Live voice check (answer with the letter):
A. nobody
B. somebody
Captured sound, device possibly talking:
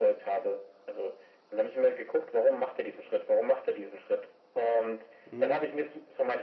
B